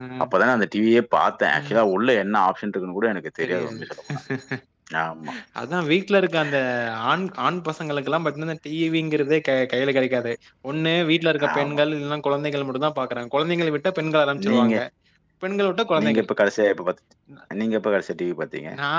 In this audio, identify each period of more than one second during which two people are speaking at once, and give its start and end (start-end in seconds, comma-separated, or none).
none